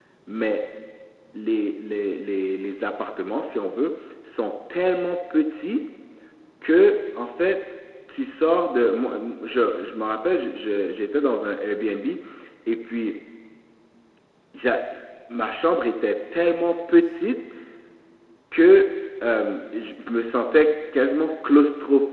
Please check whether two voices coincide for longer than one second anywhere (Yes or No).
No